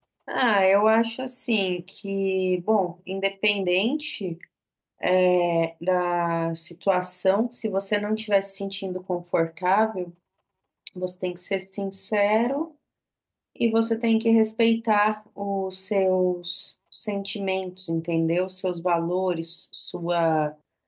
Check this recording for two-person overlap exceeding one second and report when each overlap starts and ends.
none

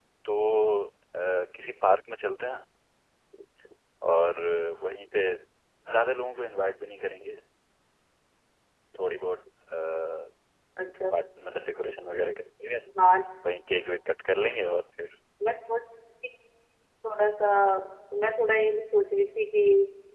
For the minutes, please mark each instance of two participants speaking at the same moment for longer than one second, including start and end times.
none

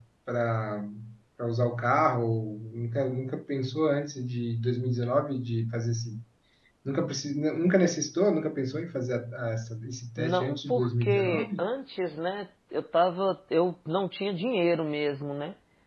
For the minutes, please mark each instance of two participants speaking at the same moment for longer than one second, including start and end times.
10.2-11.6

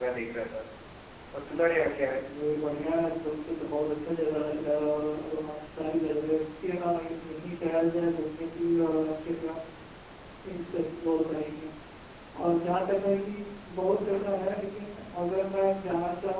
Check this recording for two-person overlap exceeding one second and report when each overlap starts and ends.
none

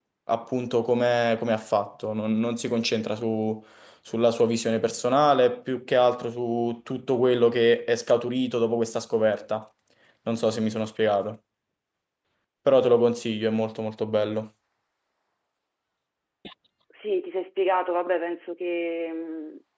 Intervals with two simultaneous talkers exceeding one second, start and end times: none

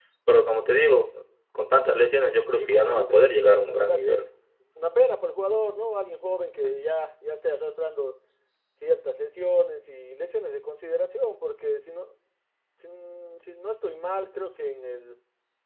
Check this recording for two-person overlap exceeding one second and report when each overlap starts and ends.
2.5-4.1

